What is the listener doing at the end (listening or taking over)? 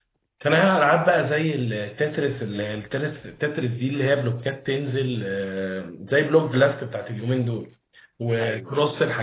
listening